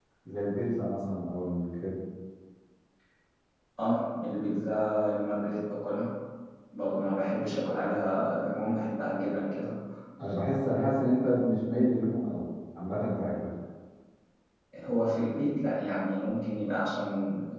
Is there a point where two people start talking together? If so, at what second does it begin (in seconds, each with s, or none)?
none